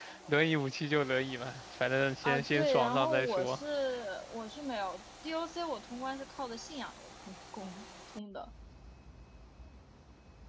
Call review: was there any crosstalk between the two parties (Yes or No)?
Yes